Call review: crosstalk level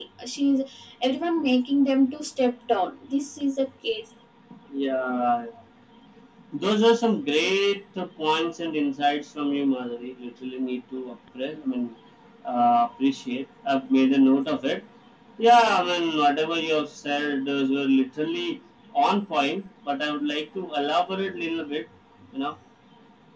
none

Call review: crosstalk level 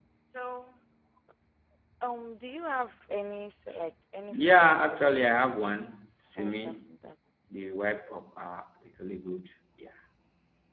present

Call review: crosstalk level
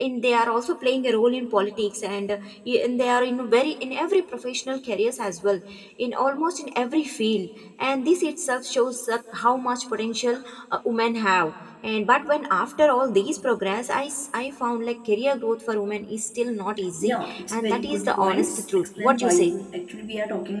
present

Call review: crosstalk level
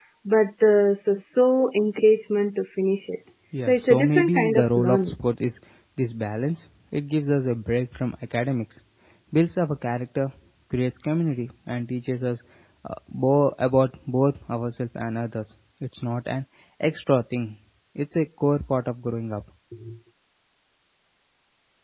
present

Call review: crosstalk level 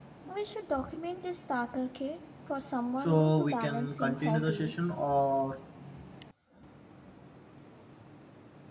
present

